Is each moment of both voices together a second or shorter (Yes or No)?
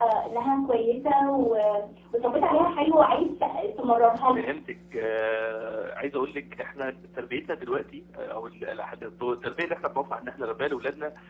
Yes